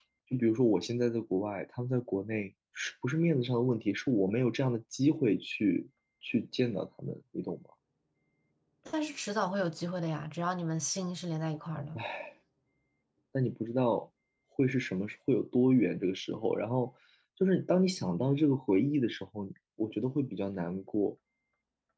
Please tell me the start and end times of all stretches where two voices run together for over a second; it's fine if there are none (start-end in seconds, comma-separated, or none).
none